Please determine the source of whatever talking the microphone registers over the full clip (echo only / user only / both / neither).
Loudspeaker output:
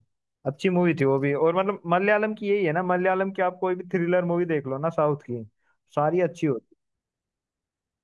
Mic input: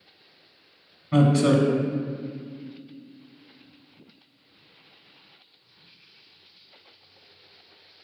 user only